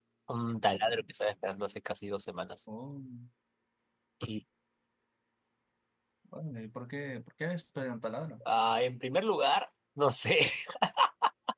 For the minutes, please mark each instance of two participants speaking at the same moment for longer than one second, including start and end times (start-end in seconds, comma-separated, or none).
none